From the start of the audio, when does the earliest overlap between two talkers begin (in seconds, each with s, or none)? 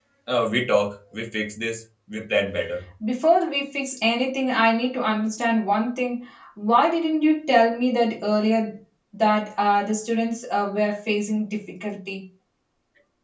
none